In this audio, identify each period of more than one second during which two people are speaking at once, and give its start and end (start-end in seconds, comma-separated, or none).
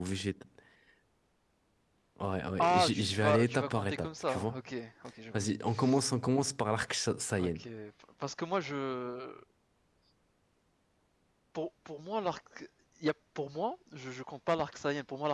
2.6-4.6